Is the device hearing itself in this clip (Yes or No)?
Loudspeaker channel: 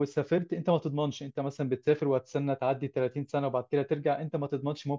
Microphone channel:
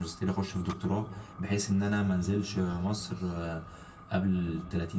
No